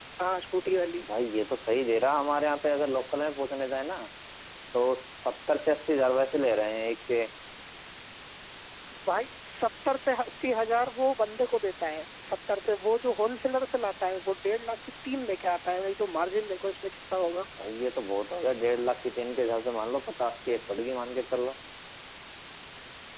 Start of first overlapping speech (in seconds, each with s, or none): none